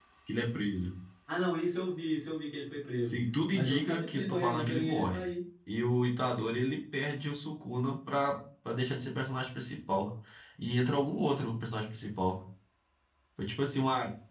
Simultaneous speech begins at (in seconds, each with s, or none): 3.0 s